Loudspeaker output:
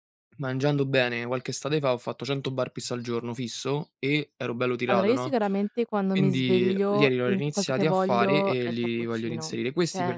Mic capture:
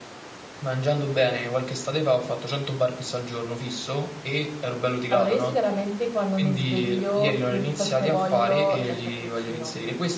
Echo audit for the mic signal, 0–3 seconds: echo only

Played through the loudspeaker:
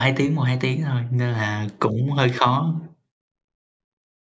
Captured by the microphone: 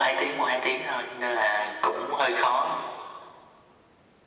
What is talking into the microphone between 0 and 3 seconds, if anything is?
echo only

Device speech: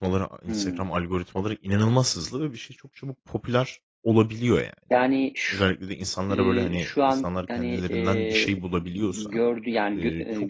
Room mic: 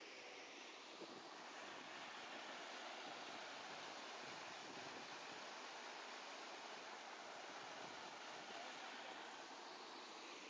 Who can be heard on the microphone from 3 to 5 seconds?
neither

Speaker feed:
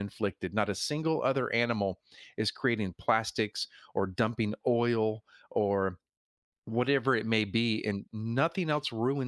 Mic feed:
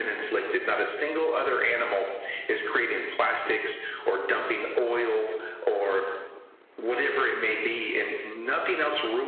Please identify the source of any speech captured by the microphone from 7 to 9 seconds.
echo only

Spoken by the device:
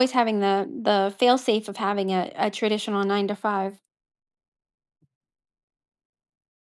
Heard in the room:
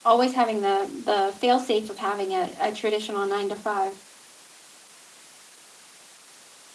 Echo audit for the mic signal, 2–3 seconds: echo only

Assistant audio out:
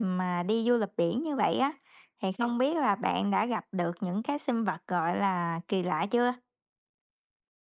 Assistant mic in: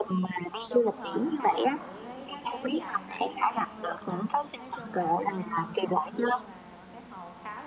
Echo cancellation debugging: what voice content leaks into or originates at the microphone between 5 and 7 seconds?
both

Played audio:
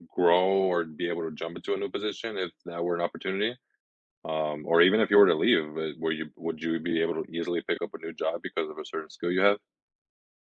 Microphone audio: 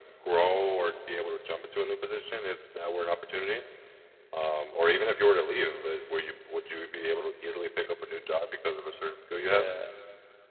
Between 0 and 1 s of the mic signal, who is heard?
echo only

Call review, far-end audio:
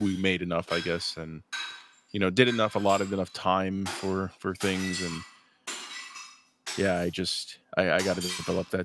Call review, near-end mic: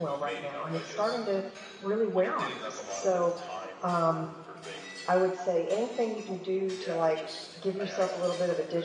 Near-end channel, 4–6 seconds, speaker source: both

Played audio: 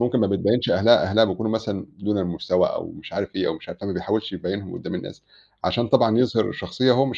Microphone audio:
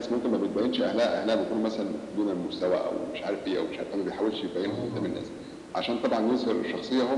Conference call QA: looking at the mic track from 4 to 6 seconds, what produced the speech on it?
both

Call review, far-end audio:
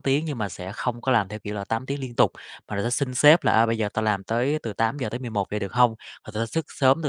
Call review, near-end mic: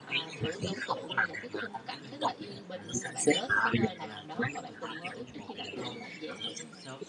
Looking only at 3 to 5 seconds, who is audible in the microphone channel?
both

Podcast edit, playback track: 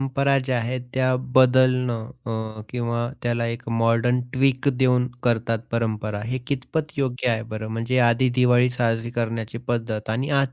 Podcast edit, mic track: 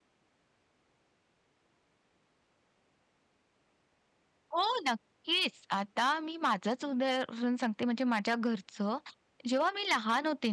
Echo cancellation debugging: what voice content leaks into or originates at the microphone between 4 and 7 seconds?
user only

